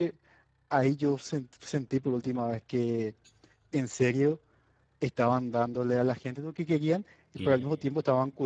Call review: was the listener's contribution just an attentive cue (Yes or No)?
Yes